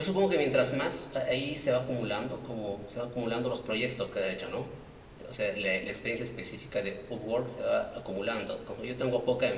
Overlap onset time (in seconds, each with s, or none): none